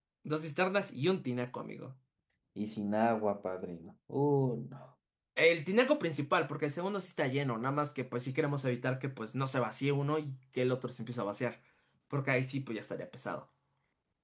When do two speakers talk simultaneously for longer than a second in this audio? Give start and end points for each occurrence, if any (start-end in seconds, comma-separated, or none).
none